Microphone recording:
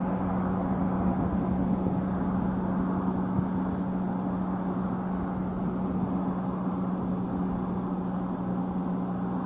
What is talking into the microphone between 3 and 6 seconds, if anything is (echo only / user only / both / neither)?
neither